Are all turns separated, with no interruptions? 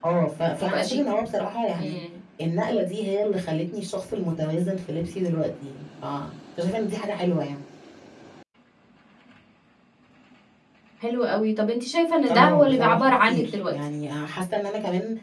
No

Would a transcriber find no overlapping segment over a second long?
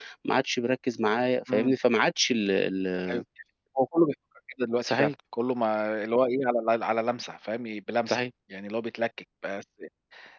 Yes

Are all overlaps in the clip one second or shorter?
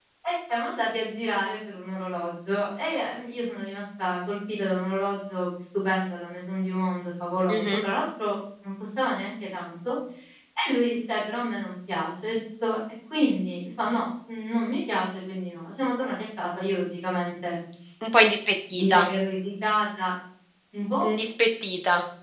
Yes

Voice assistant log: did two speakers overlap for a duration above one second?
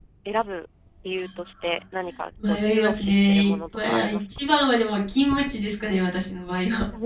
Yes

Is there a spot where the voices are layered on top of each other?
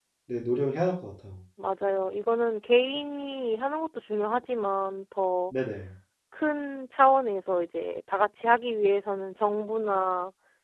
No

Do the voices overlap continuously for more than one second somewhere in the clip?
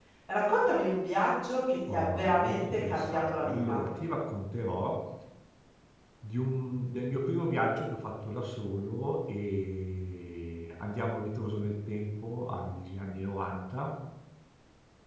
Yes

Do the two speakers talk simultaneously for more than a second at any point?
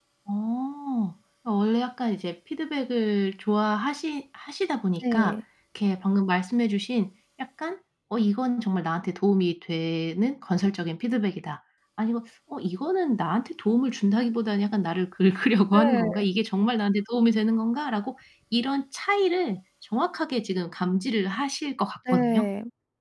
No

